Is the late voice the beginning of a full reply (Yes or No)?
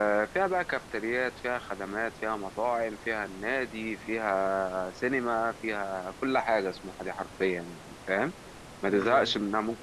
No